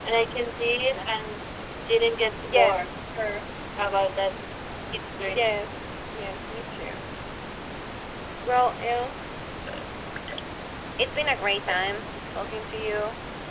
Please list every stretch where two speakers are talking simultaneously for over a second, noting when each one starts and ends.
none

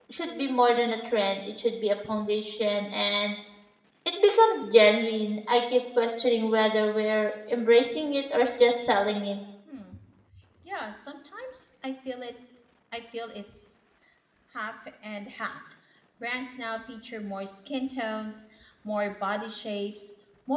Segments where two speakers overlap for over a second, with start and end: none

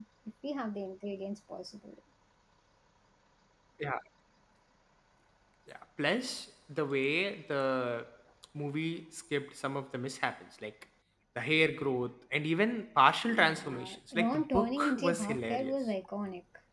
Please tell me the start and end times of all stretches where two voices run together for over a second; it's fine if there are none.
13.2-15.8

